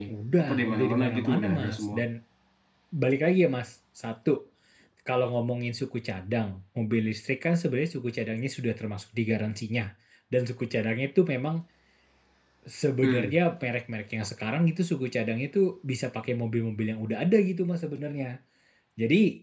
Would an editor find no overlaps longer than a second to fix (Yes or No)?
No